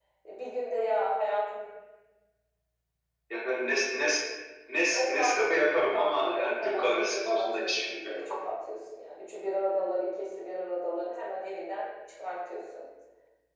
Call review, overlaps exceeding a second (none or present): present